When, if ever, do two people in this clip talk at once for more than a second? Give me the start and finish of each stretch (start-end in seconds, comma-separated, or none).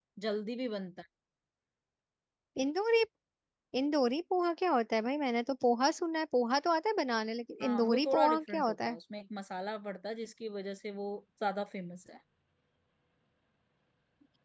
7.6-9.0